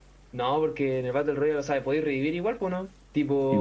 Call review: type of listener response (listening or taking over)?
taking over